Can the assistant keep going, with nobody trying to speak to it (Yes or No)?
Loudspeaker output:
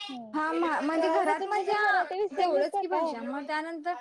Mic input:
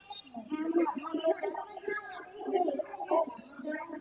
Yes